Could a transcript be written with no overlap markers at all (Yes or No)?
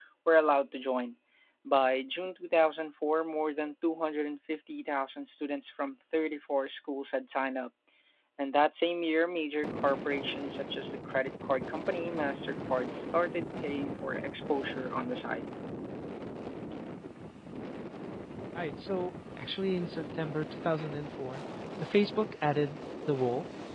Yes